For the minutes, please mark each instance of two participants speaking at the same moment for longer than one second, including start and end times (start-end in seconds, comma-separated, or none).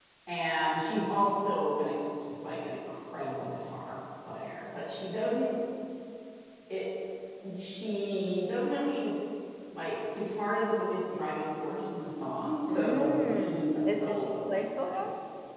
12.7-15.0